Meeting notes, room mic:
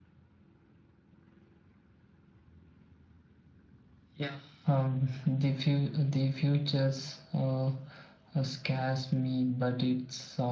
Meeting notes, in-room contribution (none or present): present